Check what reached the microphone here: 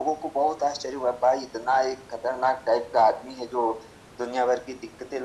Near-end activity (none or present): none